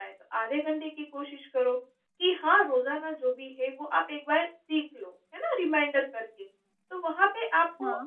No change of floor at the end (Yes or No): Yes